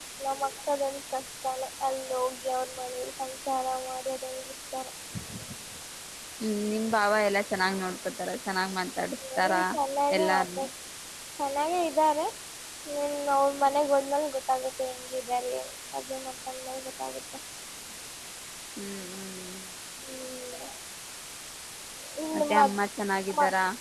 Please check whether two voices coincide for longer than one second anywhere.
No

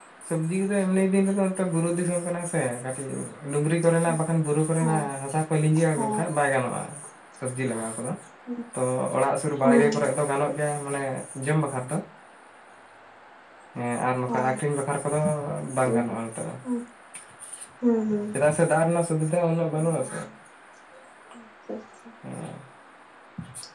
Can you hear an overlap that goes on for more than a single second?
No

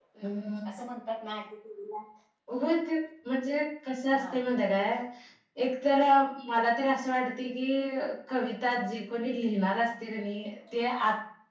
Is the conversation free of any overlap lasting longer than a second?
Yes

